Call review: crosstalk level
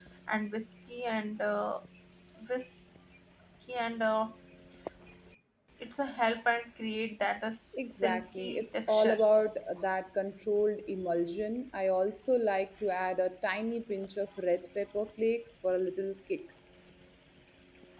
present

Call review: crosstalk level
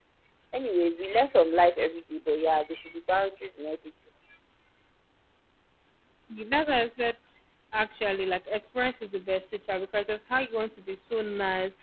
none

